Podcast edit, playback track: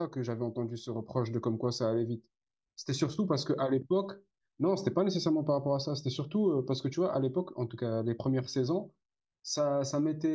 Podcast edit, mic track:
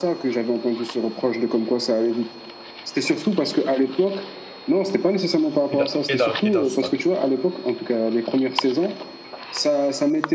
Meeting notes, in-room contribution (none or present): present